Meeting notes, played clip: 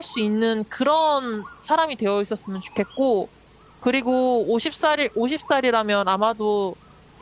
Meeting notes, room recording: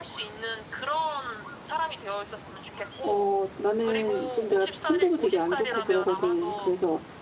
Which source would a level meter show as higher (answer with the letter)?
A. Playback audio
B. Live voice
B